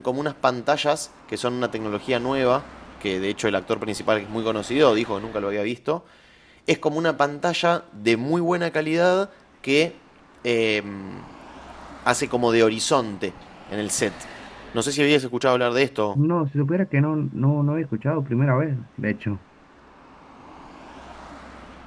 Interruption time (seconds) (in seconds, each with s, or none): none